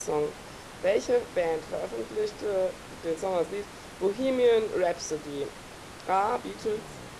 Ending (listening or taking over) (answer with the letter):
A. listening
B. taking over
A